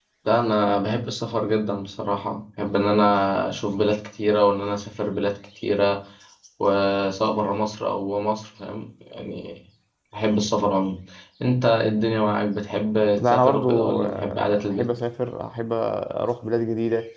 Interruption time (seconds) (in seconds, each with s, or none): 13.2 s